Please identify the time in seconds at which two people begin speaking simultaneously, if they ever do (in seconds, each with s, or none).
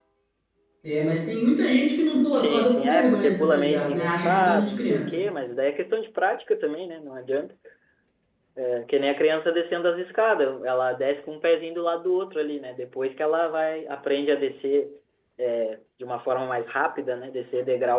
2.3 s